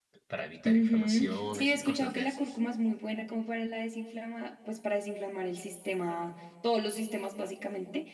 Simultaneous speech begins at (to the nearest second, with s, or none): 1 s